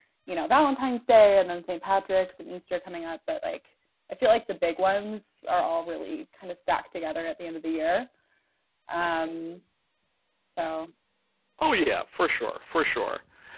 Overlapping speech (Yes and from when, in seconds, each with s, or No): No